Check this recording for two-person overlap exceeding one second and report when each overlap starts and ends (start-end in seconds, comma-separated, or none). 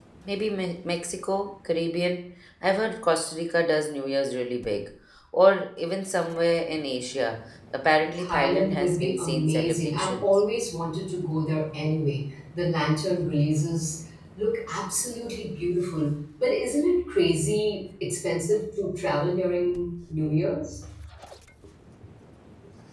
8.2-10.4